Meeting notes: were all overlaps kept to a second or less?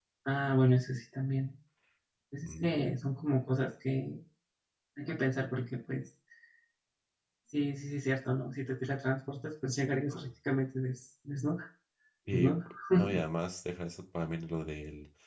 Yes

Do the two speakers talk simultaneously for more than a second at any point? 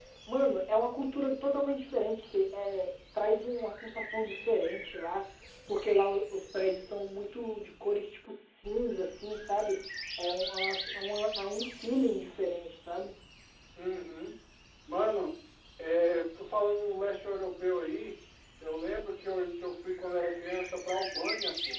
No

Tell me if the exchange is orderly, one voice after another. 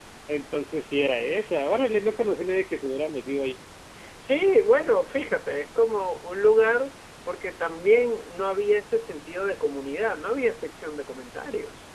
Yes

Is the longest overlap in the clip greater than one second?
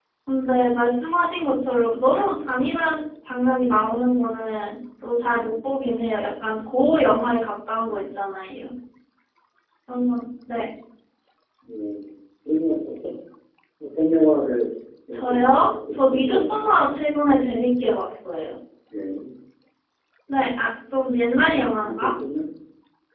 Yes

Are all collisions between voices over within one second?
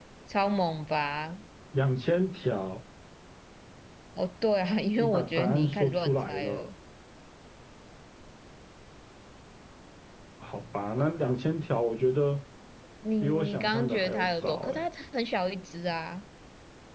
No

